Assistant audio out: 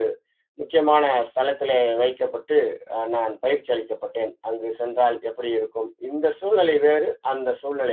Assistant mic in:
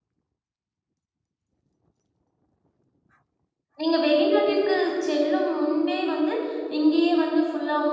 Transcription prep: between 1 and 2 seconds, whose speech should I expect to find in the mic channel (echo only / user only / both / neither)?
neither